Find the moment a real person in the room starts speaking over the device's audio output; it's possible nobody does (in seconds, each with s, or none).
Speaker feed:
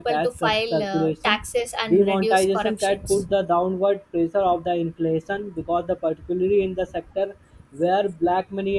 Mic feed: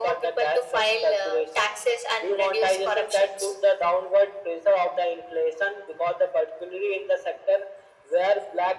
none